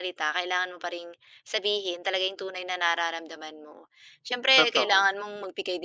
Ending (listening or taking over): listening